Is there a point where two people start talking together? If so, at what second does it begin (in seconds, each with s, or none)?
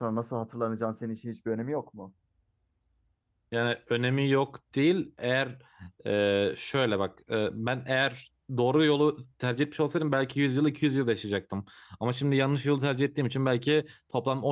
none